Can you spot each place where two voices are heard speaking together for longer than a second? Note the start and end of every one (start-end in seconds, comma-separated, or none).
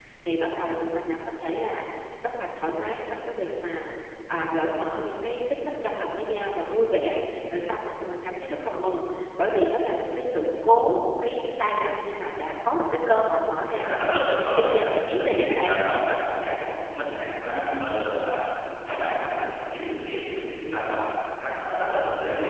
13.8-15.8